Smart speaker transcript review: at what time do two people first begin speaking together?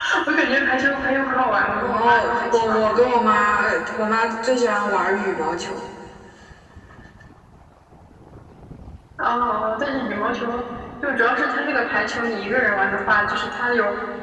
2 s

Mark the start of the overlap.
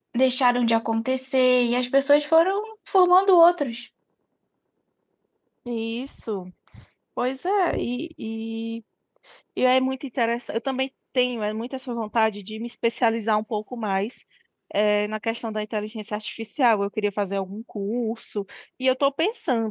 none

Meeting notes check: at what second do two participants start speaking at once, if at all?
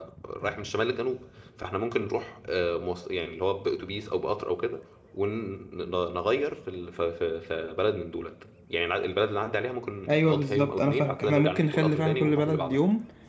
10 s

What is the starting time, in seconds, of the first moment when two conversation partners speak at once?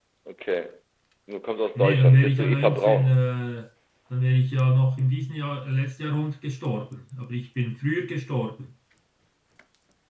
2 s

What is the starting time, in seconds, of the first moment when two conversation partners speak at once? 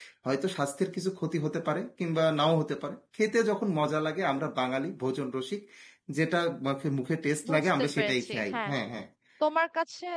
7 s

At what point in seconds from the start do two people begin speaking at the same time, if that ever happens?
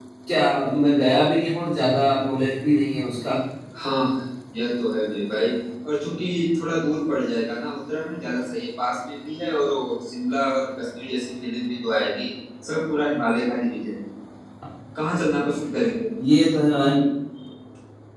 none

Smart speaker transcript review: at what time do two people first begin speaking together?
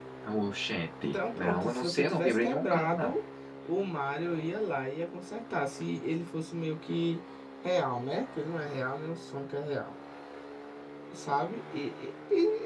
1 s

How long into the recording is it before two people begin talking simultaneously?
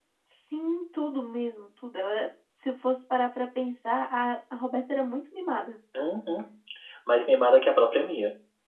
none

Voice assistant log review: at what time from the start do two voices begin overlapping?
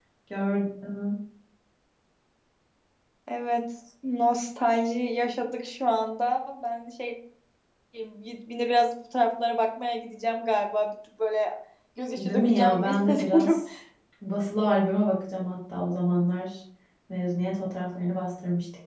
12 s

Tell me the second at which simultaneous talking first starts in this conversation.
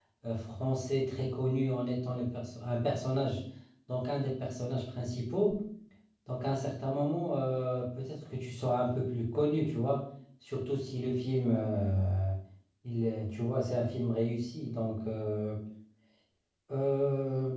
none

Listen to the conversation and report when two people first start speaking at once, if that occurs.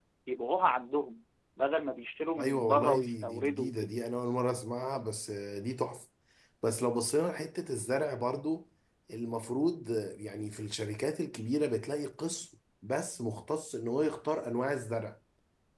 2 s

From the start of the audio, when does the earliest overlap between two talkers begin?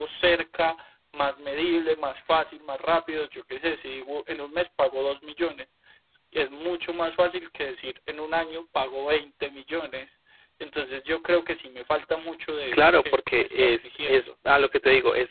13 s

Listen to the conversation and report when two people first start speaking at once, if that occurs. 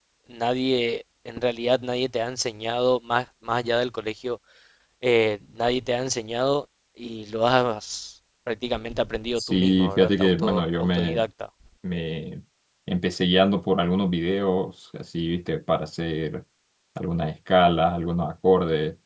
9 s

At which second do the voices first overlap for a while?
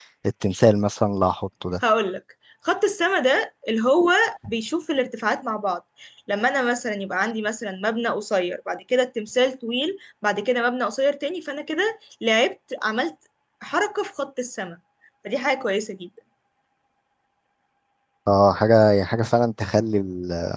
none

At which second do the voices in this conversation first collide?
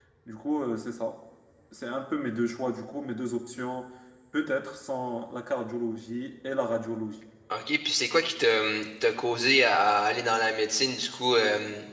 none

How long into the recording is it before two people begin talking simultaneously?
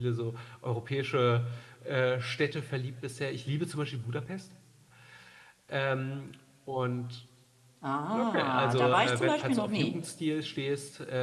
8 s

